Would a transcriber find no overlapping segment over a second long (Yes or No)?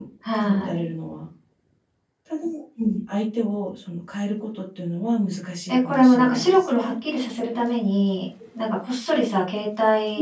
No